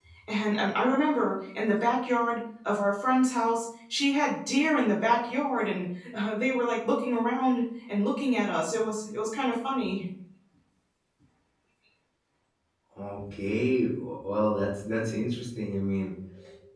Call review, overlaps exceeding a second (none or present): none